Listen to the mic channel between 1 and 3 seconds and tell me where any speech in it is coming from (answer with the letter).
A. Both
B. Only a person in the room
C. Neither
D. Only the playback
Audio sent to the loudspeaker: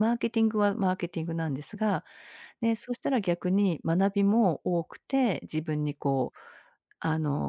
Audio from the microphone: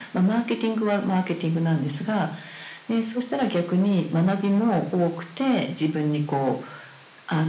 D